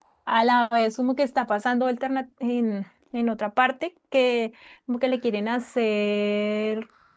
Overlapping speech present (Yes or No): No